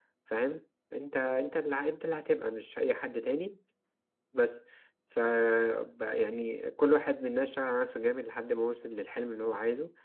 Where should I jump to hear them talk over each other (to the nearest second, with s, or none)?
none